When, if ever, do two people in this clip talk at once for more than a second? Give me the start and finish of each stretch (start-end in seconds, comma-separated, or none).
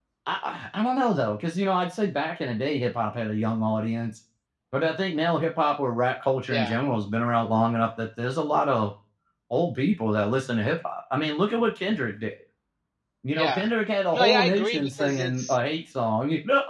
14.1-15.6